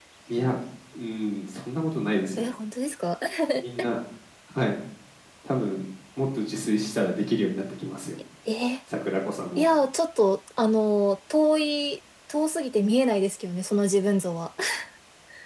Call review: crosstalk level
none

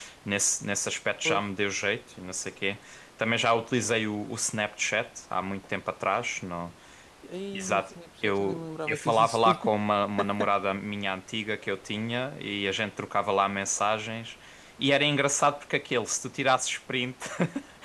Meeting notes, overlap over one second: present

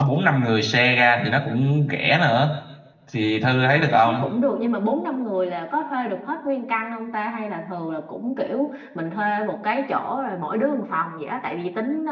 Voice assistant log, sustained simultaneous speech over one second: none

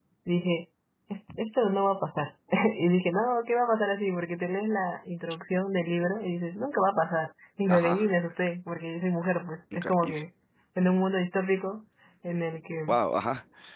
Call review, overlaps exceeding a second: none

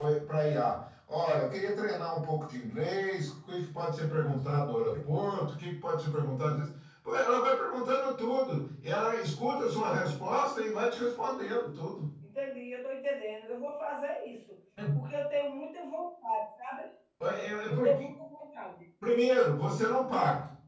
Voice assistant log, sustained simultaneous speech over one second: none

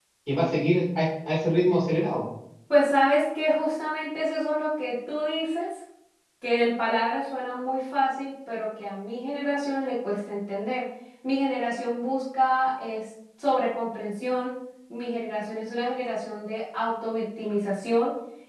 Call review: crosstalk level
none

